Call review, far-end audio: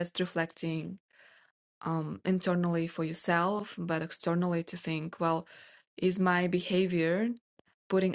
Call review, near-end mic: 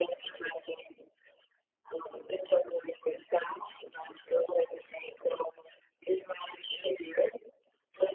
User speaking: No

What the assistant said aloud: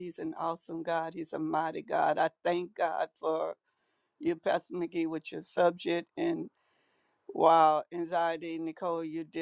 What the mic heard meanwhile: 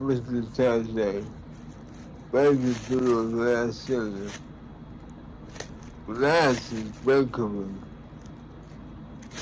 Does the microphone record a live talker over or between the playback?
Yes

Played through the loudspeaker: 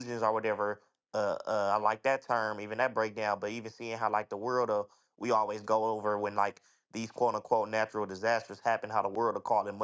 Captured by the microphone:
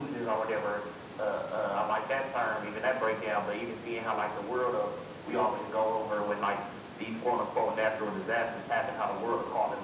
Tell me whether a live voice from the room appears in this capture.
No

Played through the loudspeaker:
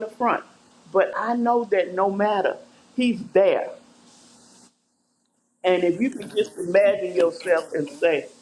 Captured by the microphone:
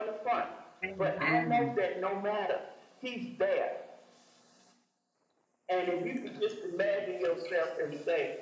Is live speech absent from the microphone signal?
No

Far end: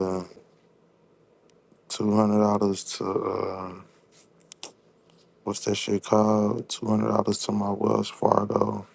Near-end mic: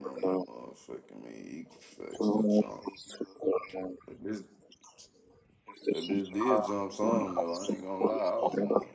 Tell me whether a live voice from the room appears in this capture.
Yes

